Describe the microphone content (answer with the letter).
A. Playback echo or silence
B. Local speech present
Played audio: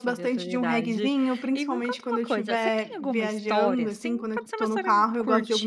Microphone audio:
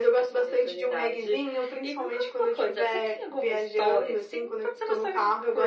A